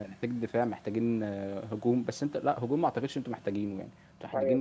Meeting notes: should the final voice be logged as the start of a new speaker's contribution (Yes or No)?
Yes